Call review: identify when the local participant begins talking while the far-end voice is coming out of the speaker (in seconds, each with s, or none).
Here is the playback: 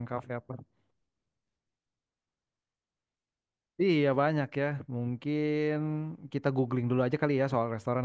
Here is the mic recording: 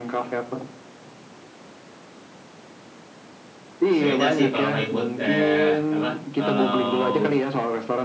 4.0 s